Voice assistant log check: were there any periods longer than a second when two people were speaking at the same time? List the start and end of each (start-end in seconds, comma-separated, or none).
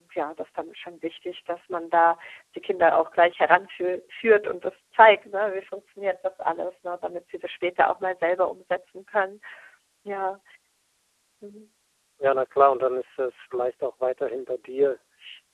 none